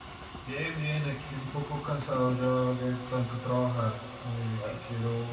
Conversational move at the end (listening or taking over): listening